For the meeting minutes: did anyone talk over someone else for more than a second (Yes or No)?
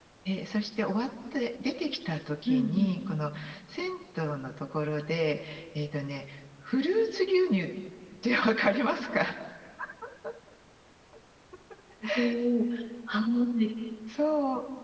No